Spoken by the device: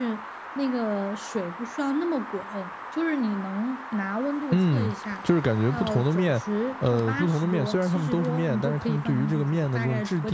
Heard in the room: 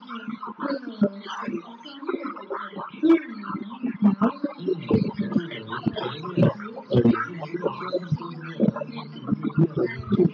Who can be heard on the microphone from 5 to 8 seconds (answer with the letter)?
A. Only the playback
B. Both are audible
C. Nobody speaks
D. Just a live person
A